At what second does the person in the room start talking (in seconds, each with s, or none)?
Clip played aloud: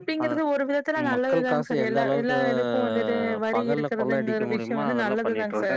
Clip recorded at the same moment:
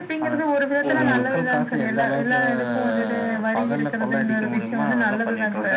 0.9 s